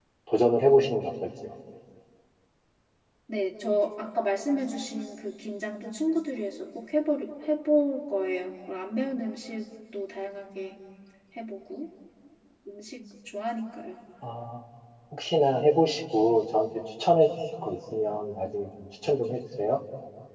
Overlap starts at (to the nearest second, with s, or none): none